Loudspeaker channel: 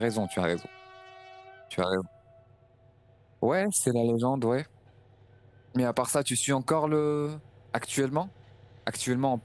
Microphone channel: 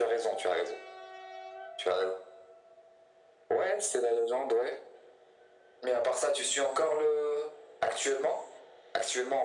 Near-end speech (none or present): none